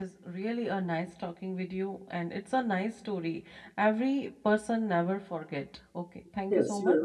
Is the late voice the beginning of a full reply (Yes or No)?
Yes